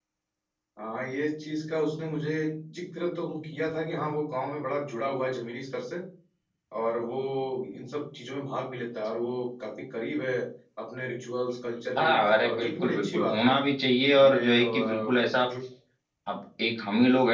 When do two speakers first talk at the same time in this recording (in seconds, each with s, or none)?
12.0 s